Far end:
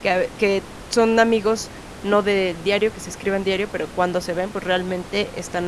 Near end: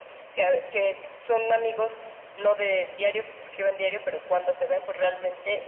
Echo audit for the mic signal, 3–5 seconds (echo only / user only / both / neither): echo only